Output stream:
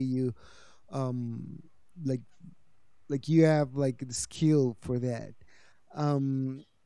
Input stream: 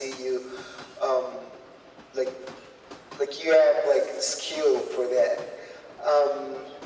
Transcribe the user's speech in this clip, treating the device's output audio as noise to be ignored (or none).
none